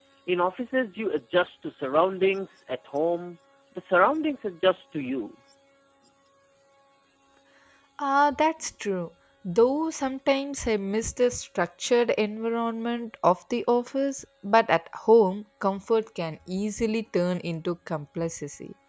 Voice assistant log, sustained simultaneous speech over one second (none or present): none